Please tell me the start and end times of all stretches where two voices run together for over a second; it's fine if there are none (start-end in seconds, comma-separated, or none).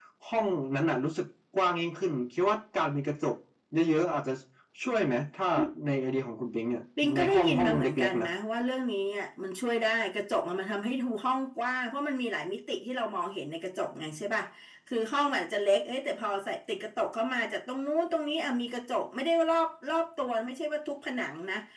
7.0-8.3